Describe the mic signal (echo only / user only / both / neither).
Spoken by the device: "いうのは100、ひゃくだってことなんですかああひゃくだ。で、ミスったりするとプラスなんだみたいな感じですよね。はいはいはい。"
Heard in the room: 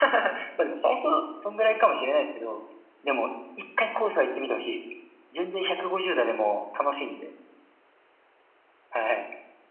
user only